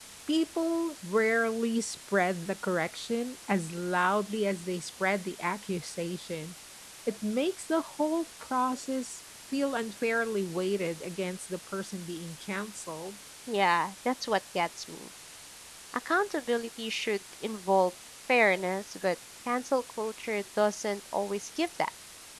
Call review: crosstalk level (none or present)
none